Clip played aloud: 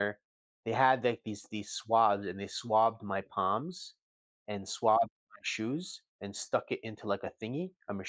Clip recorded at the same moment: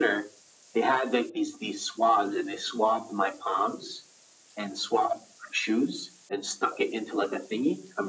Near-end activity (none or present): none